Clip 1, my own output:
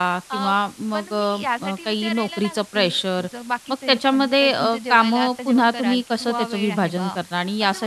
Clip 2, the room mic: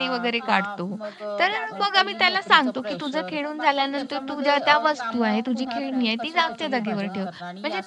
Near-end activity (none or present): present